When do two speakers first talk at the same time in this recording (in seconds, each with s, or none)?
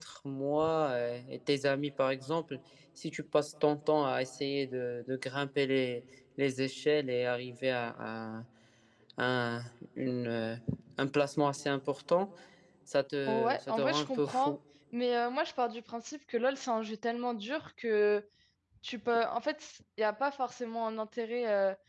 13.3 s